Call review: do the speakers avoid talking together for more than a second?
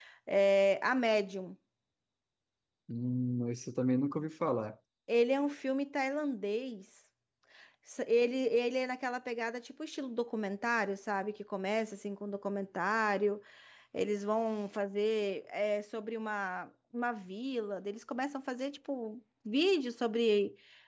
Yes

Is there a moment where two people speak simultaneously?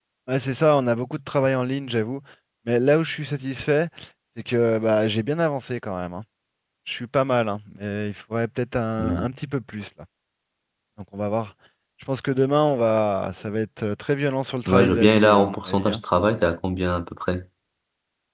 Yes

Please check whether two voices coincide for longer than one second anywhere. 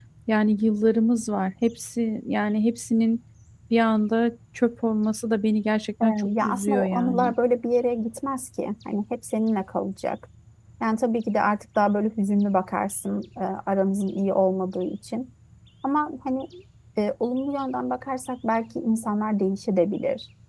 Yes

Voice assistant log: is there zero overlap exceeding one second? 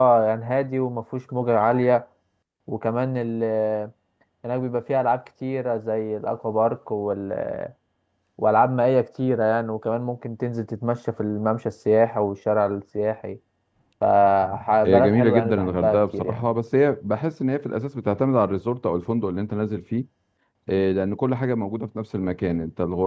No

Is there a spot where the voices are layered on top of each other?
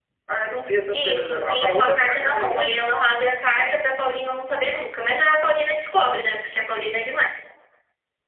Yes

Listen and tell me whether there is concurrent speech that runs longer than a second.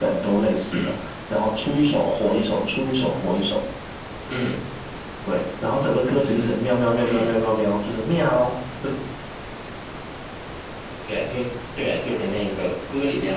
No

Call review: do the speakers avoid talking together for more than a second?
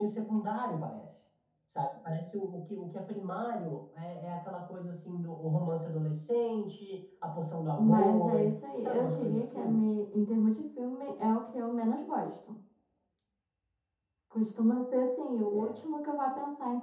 No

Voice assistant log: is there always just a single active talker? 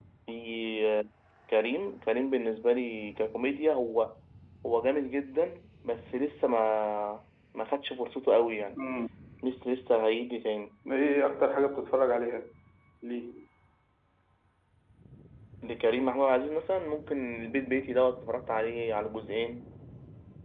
Yes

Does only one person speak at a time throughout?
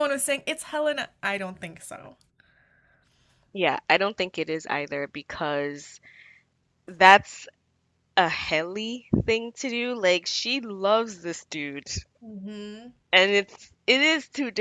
Yes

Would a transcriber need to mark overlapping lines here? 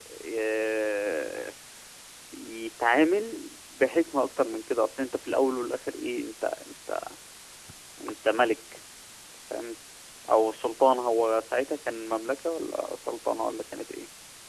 No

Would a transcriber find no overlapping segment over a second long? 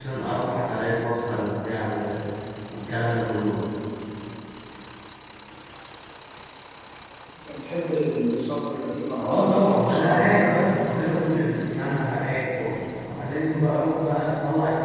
No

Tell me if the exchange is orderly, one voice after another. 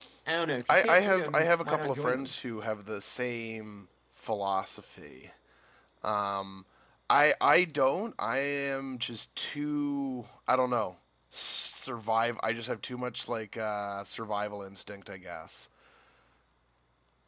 No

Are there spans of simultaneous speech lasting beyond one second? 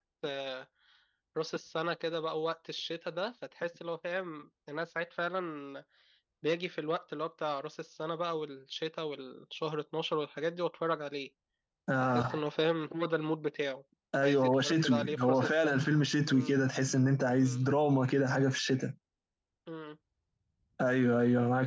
Yes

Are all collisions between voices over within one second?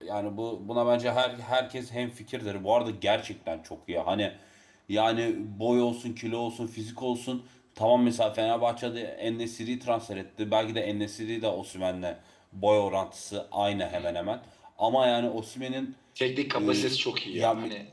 Yes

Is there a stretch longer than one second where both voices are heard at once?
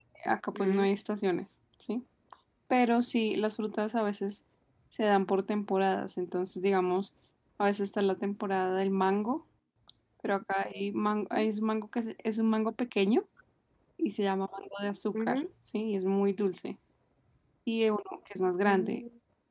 No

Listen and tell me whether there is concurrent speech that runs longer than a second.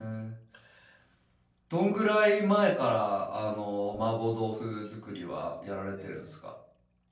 No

